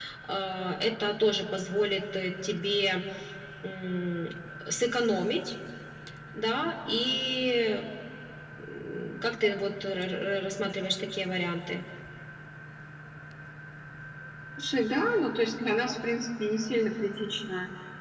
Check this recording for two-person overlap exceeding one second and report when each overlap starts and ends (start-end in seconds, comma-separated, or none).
none